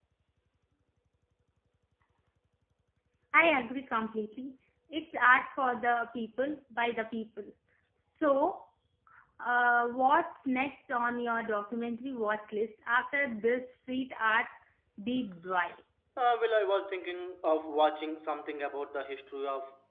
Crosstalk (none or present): none